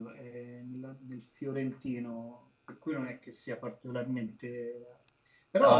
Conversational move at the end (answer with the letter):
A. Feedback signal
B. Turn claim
A